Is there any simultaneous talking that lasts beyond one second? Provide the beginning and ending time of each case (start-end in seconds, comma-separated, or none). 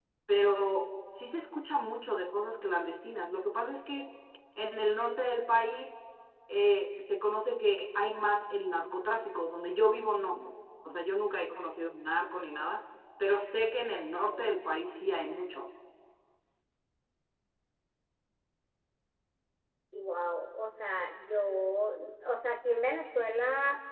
none